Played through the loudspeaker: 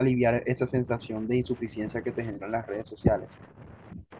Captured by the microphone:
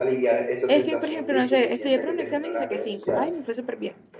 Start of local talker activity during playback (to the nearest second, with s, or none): 1 s